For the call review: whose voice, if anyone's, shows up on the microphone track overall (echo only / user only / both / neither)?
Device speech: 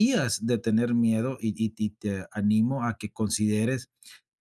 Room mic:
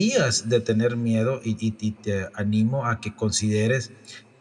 echo only